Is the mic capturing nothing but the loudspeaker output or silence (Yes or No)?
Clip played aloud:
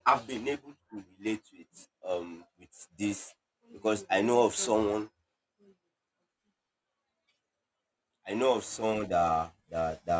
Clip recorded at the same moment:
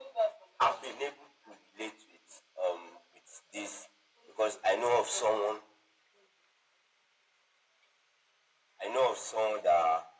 Yes